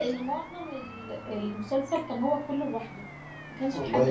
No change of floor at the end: No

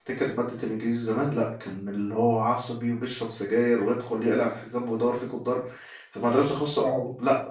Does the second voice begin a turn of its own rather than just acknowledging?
No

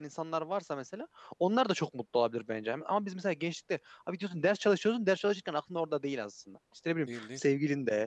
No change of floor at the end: Yes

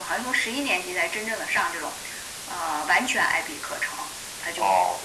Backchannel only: Yes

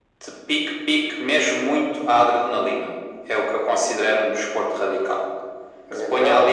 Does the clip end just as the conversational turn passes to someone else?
No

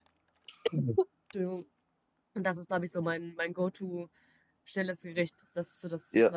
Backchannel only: No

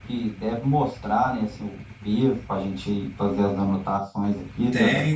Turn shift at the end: Yes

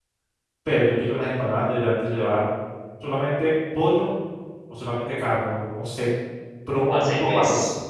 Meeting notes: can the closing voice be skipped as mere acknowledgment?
No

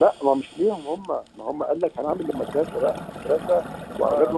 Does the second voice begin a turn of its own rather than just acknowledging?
No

